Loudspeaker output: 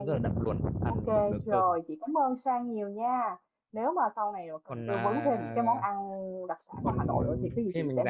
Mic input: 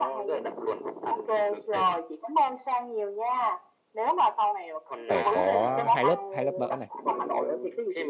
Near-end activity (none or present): present